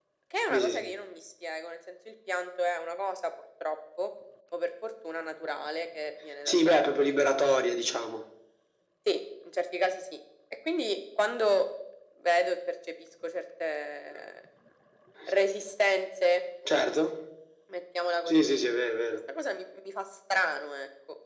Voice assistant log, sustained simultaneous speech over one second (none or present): none